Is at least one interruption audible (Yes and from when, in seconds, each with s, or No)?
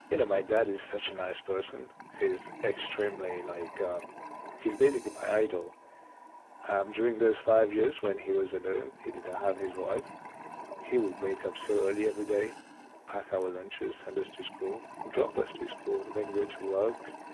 No